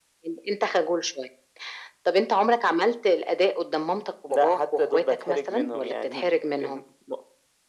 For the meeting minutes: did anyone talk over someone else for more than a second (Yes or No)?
Yes